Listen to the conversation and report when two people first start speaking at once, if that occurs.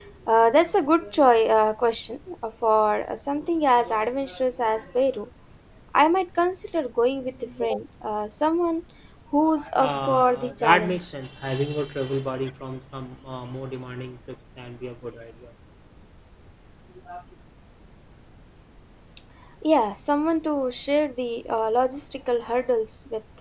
9.8 s

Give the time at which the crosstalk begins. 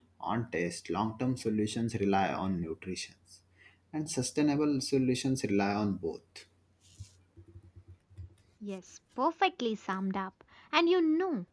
none

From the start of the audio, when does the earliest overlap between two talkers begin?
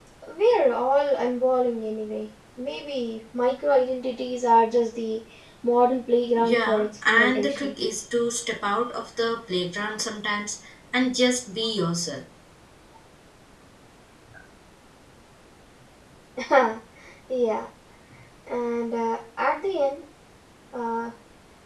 6.4 s

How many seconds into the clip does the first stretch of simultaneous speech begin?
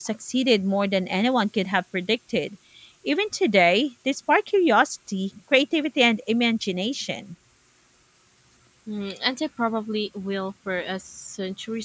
none

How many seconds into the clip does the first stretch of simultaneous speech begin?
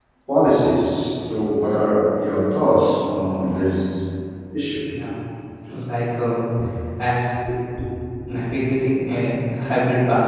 none

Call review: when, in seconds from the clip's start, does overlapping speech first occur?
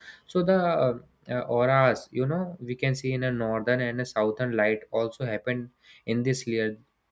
none

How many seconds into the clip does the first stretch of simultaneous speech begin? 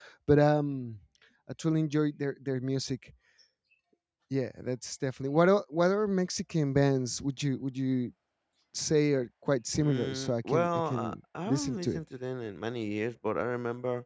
9.8 s

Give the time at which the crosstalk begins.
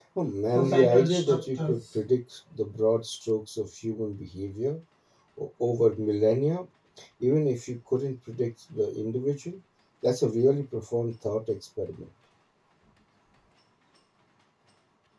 0.6 s

